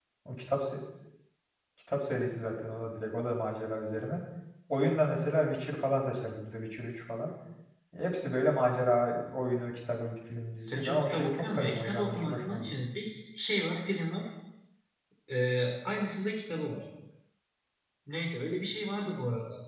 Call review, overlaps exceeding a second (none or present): present